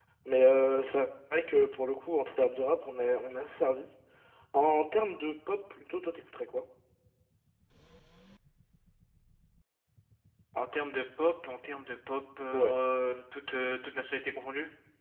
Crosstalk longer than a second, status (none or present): none